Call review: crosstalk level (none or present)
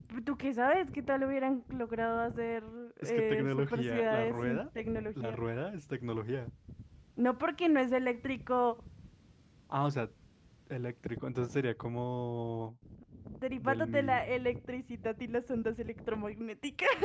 present